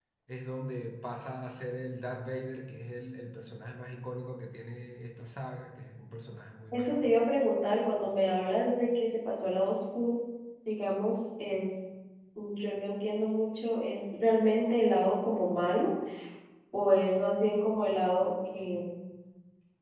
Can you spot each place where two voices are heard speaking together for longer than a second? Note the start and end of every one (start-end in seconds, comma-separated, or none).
none